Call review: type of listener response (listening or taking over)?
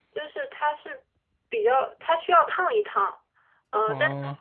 listening